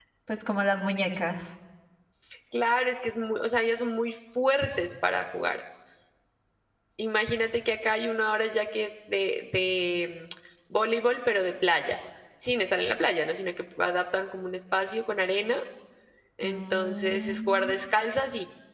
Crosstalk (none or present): present